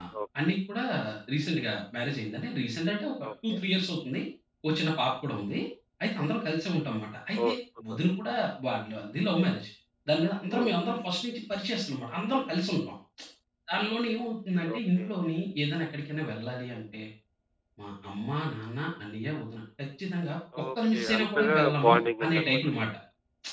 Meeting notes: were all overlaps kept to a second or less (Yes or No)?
No